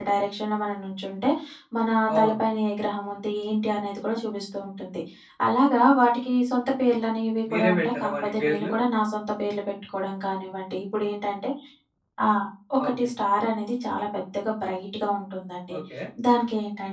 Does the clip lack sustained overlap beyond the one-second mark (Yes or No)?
No